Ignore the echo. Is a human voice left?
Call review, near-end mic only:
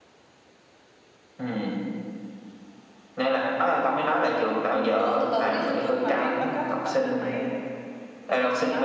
Yes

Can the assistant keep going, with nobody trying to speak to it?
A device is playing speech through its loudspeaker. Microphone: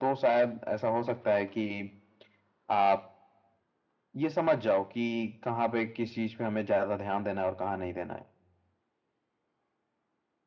Yes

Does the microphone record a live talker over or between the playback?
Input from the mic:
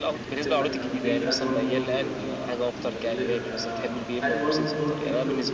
Yes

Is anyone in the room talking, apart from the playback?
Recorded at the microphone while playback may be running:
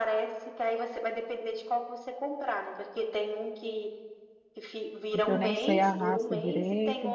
Yes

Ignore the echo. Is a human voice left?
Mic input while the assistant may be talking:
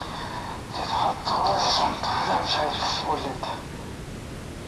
No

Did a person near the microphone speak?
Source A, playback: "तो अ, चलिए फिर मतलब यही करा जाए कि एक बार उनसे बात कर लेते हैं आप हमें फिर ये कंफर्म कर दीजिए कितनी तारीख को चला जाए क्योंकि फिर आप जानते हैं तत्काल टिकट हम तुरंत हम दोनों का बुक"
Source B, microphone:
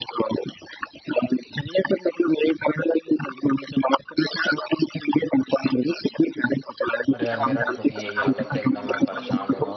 Yes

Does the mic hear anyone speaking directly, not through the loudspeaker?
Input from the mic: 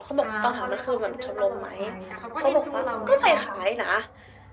Yes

